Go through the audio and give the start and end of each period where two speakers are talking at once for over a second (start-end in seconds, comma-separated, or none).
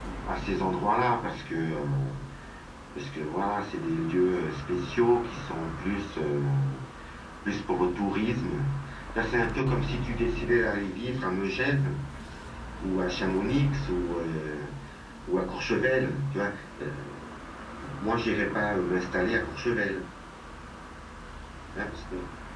none